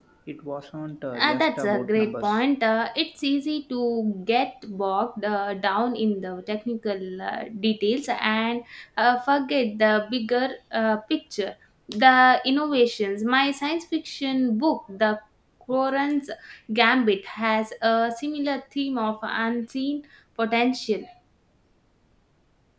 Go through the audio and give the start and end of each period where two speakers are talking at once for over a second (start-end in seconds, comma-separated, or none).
1.2-2.4